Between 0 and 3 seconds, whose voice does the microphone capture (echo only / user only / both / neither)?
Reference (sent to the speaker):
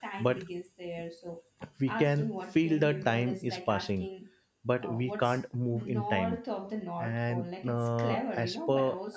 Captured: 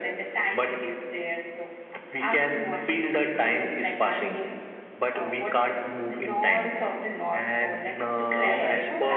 echo only